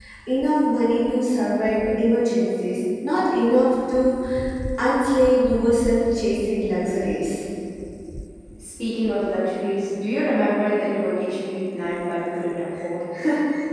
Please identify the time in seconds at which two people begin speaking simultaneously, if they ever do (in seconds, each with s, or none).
none